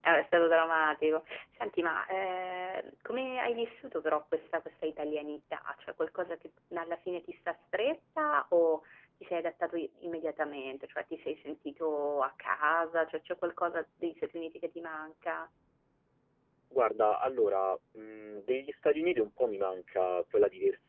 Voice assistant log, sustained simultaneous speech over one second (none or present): none